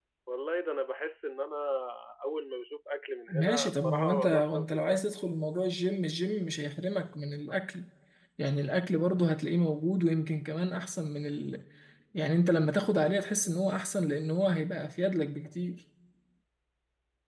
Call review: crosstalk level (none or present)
present